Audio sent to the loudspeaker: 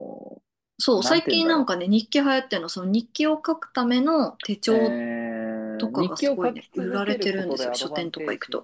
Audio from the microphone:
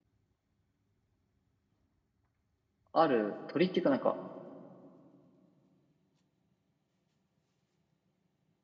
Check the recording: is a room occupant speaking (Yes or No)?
Yes